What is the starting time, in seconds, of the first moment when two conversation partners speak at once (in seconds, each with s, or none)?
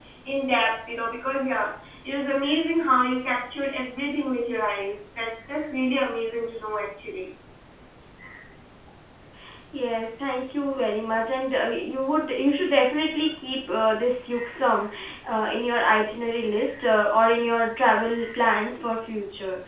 none